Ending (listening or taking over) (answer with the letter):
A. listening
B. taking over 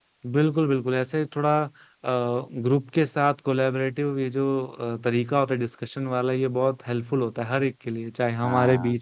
A